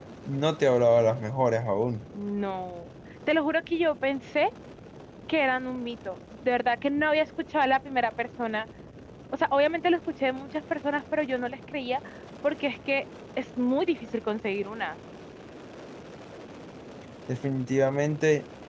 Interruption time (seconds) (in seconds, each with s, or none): none